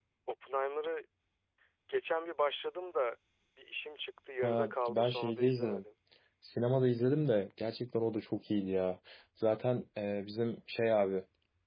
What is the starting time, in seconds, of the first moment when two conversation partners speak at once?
4 s

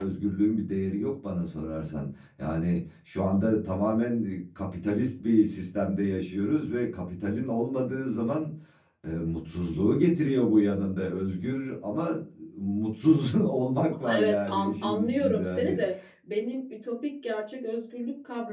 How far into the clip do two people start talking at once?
14 s

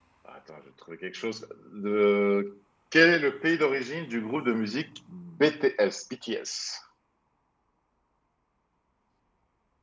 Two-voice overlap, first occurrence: none

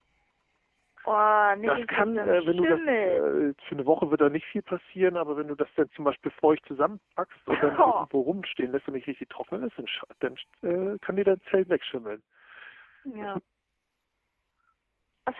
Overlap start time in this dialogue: 2 s

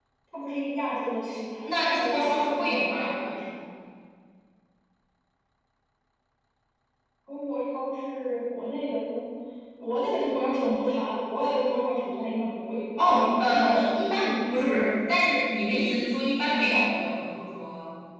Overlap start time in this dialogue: 2 s

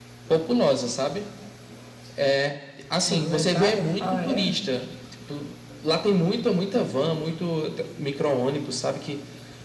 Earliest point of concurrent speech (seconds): 3 s

